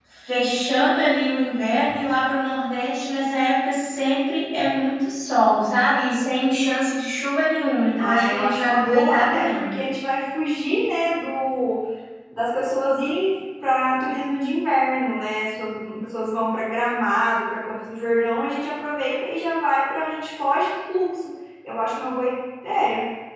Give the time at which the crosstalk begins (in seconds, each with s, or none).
8.0 s